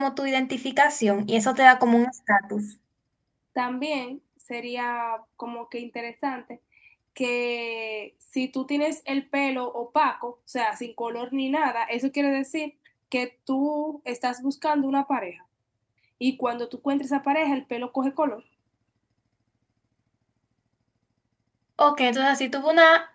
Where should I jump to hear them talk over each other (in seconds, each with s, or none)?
none